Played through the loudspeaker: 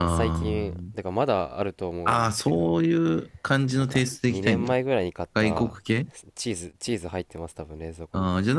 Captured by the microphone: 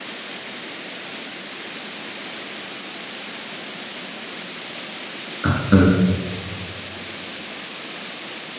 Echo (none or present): none